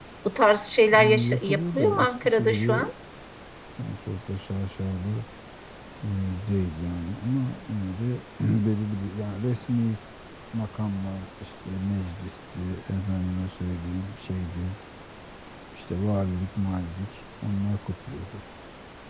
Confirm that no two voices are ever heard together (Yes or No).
No